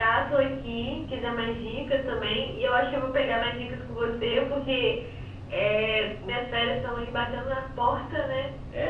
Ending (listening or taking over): taking over